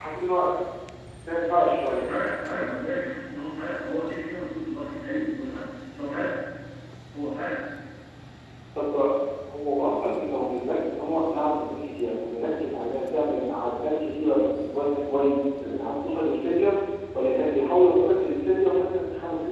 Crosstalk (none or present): none